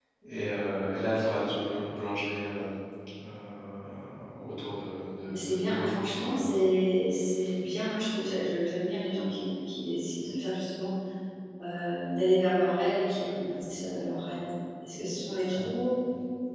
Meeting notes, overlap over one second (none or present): present